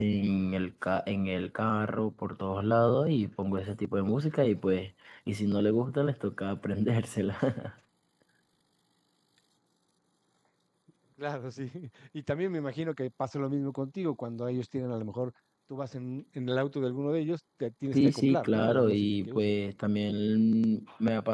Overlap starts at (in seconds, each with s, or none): 17.9 s